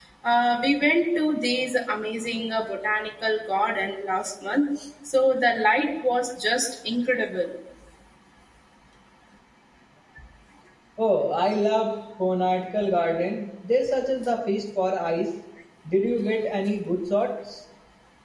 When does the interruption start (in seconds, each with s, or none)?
none